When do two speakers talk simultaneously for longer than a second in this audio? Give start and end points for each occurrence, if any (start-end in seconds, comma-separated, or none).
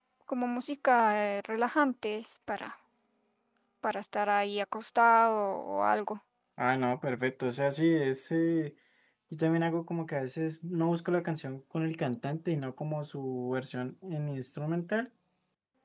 none